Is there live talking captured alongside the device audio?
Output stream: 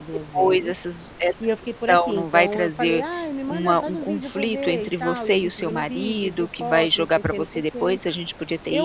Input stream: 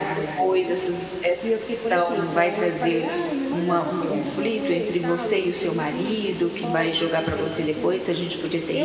Yes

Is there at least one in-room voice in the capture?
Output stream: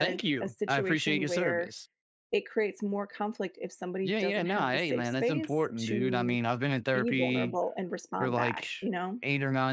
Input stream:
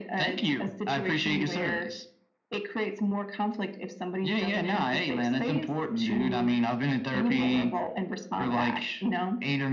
No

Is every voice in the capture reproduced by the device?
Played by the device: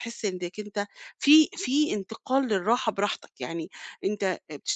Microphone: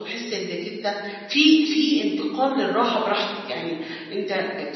Yes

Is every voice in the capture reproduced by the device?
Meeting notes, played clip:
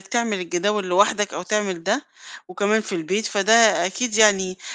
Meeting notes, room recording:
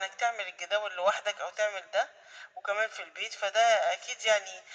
Yes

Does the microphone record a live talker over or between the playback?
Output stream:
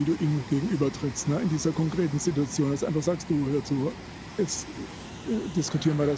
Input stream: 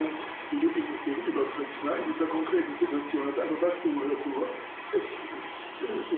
No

